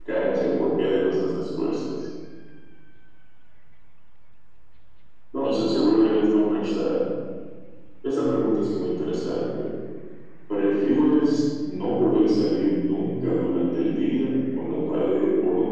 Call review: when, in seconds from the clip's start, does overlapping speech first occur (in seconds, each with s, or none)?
5.4 s